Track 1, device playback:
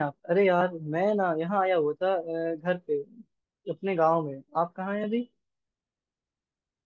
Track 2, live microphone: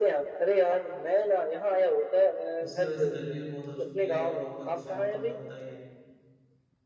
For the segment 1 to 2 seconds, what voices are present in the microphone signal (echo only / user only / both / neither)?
echo only